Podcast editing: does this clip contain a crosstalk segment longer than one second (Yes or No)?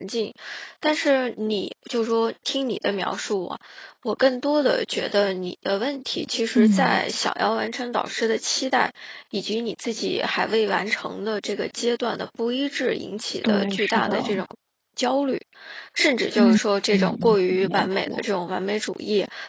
Yes